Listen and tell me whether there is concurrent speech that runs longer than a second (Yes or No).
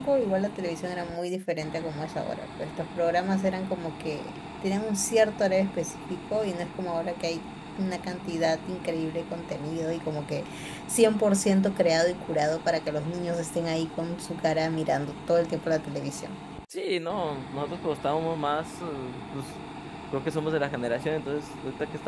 No